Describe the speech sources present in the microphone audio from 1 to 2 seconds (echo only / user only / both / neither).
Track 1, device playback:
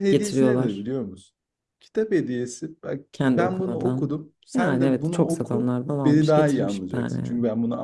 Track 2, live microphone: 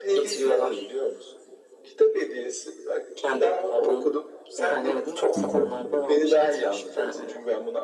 echo only